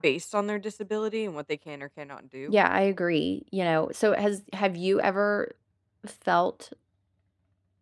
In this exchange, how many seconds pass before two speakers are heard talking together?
none

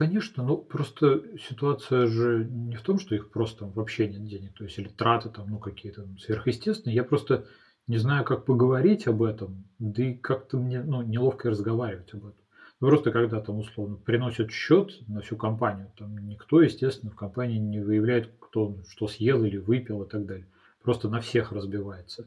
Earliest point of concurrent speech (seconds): none

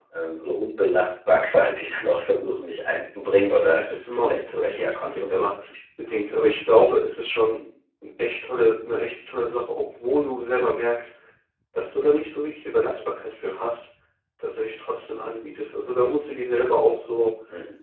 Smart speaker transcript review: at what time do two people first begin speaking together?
3.6 s

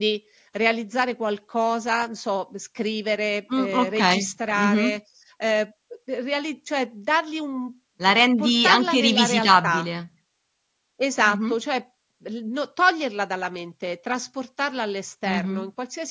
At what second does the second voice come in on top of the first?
3.6 s

